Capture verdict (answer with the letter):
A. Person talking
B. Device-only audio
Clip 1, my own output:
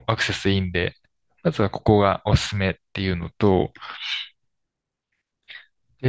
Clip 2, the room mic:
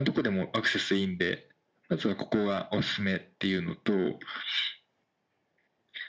B